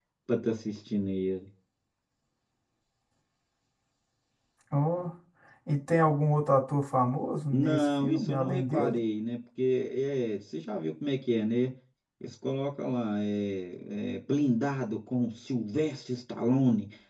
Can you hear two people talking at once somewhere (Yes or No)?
Yes